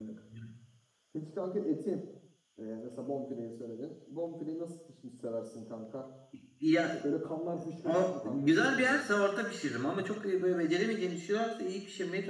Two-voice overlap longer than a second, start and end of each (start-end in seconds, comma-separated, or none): 7.8-9.0